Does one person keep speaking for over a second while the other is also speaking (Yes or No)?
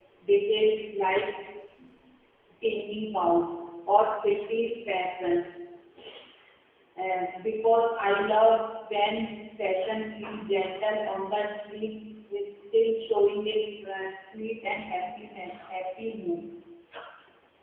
No